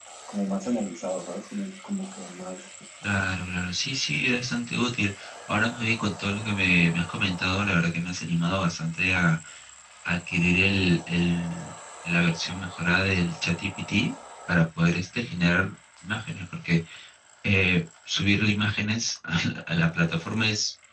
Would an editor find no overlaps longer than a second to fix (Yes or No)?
Yes